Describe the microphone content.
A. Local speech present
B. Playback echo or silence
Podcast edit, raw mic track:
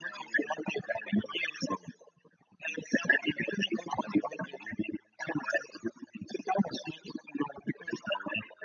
B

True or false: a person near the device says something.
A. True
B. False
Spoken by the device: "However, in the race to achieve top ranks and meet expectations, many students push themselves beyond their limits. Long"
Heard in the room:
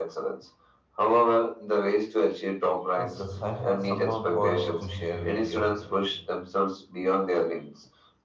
A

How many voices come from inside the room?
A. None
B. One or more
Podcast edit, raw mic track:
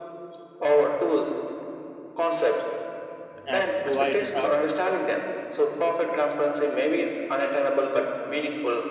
B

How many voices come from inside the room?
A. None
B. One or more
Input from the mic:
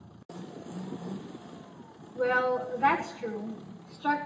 B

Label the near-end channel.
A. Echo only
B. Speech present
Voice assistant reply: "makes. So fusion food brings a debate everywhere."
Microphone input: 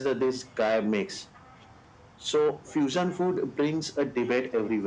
A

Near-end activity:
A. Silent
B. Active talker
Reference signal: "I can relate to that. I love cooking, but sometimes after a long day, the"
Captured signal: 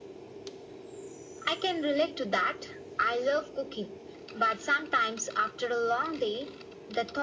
A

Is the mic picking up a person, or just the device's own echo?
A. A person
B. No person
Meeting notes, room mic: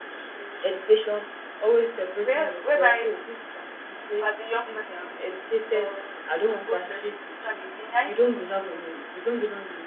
A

